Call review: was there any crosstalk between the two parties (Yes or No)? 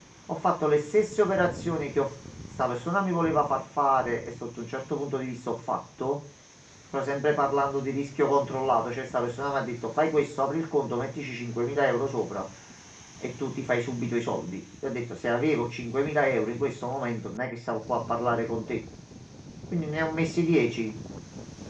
No